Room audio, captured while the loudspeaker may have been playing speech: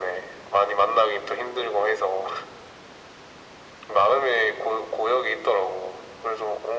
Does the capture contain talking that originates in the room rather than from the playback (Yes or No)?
No